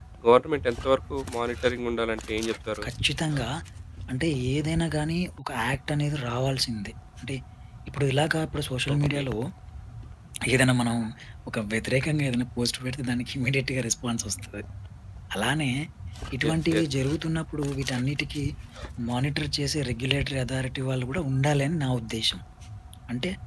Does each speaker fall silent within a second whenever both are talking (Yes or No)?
Yes